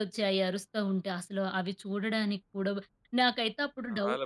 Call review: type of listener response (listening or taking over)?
listening